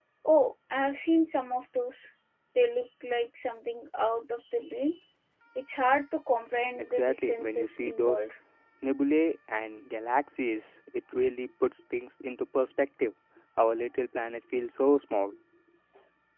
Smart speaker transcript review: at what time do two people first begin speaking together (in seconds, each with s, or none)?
6.8 s